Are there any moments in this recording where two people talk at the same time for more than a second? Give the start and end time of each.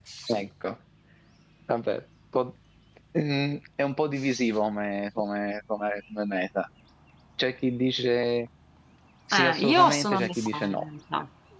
9.3-10.8

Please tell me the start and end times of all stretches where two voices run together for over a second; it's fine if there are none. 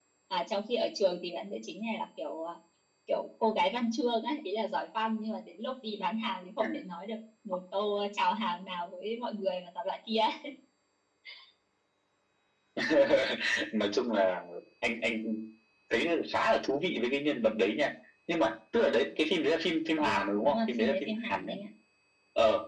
20.0-21.6

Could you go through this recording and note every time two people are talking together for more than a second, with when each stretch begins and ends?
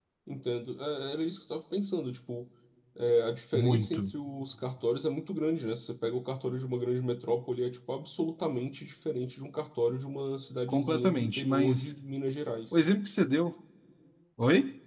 10.7-11.9

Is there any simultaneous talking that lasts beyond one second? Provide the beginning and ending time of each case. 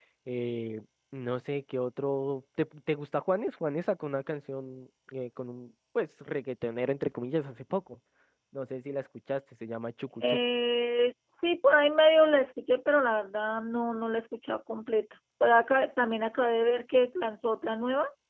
none

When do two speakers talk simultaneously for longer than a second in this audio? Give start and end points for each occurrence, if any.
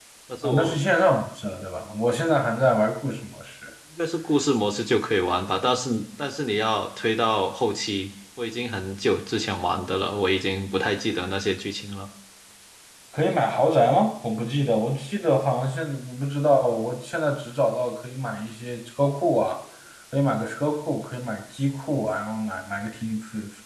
none

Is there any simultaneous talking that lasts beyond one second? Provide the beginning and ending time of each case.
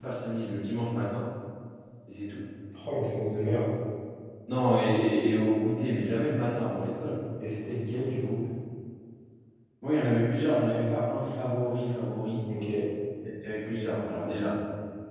none

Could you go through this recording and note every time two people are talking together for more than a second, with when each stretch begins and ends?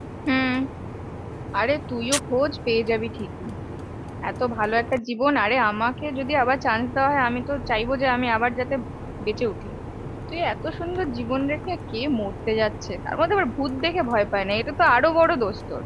none

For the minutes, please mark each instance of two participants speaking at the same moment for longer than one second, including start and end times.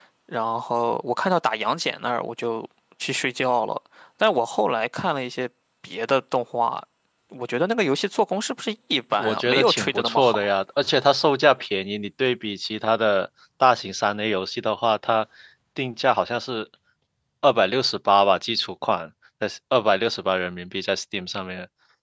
9.2-10.5

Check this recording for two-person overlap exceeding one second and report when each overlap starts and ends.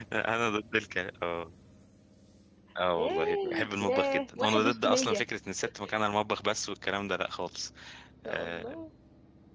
3.0-5.2

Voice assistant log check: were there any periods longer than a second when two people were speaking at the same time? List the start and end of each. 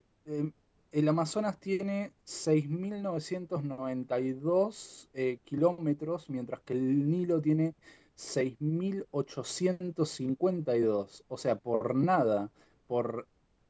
none

